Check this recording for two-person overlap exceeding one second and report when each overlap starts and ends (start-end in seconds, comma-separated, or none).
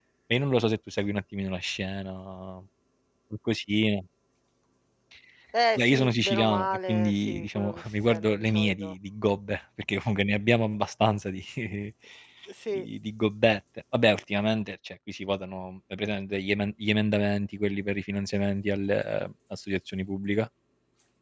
5.8-8.9